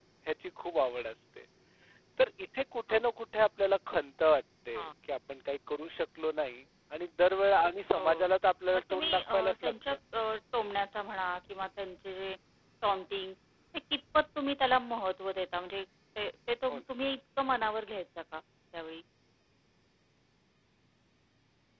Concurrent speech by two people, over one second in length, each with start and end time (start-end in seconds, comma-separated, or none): 8.7-10.0